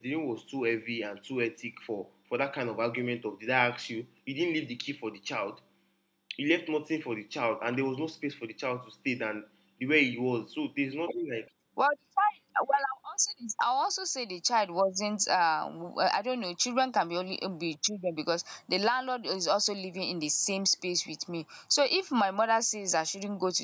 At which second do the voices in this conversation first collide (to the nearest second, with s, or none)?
none